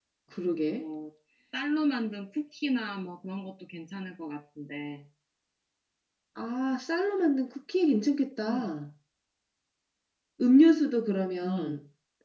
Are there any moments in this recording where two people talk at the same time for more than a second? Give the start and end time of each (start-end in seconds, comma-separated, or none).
none